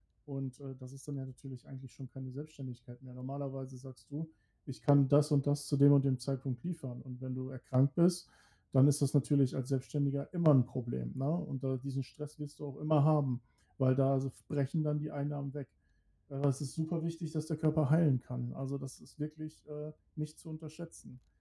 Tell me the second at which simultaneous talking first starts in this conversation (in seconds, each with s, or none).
none